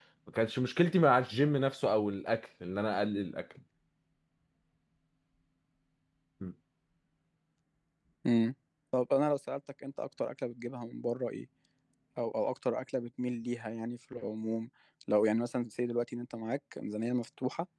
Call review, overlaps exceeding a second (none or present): none